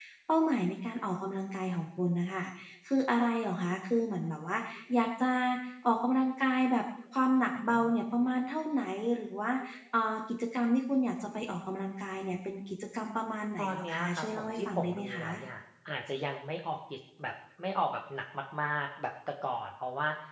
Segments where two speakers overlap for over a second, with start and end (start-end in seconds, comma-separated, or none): 13.6-15.4